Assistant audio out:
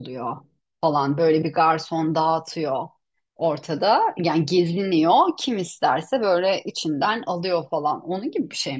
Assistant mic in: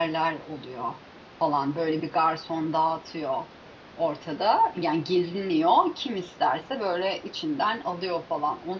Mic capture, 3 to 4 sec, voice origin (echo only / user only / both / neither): echo only